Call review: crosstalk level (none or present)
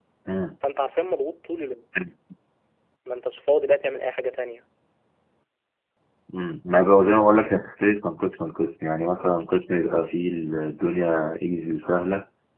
none